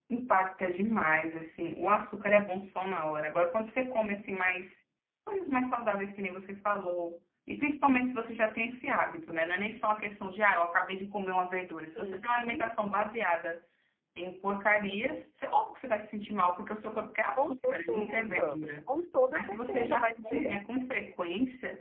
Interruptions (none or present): present